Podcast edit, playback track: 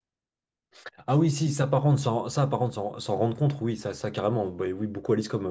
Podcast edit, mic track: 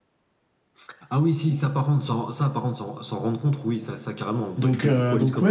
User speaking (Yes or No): Yes